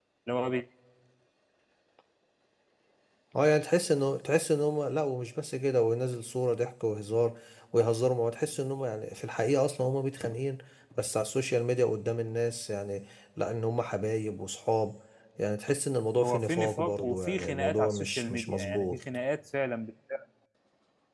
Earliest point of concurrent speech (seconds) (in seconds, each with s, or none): 16.2 s